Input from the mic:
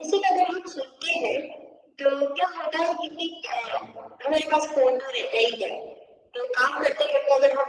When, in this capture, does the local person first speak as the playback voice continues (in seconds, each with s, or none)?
none